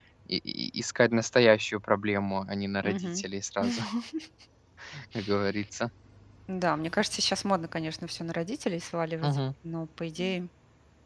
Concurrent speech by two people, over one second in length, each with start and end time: none

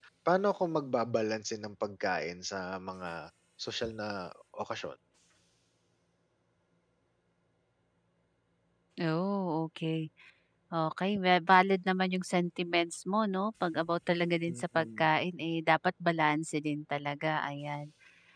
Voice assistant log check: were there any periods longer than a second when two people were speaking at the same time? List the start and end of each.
none

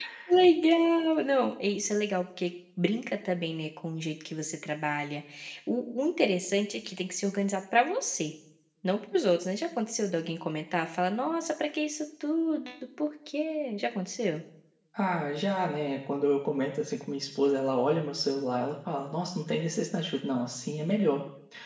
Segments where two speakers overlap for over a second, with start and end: none

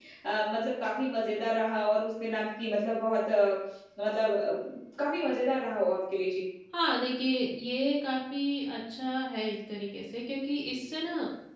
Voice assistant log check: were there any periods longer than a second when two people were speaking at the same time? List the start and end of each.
none

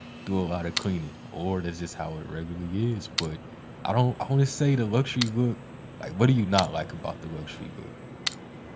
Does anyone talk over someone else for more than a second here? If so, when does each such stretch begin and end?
none

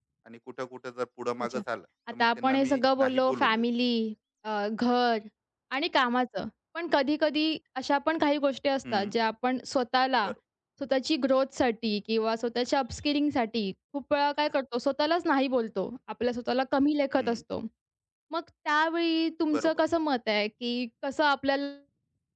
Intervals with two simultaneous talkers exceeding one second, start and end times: 2.1-3.6

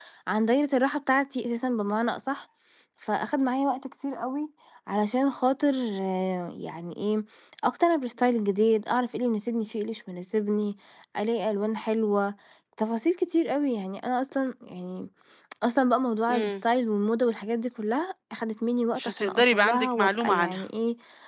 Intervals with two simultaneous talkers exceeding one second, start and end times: 19.0-20.6

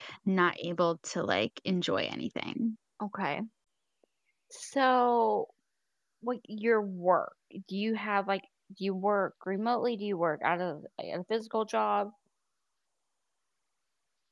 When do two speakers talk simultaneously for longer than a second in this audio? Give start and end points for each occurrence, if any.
none

